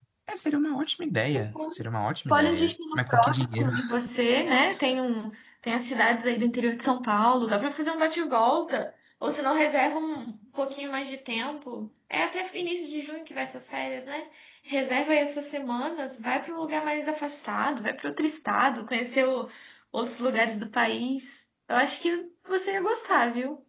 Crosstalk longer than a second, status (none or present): present